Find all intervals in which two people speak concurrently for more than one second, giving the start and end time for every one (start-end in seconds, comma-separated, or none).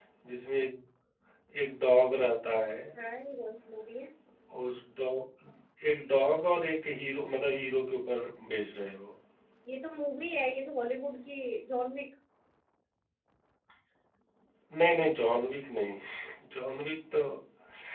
none